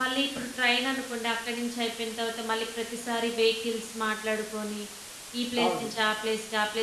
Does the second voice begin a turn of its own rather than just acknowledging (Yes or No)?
No